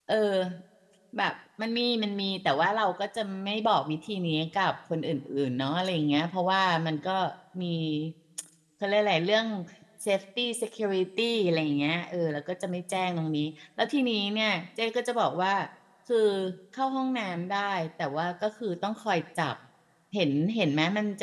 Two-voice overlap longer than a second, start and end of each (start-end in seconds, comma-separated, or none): none